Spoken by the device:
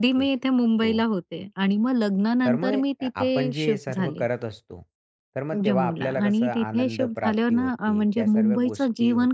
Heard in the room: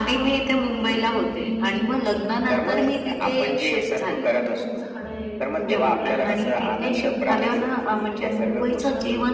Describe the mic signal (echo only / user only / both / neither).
both